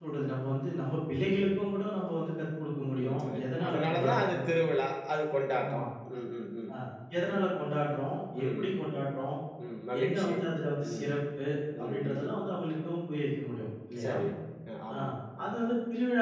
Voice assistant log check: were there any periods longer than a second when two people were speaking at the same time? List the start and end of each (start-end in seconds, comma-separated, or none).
3.0-4.4